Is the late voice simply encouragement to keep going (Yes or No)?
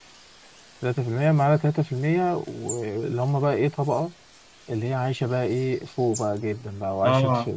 Yes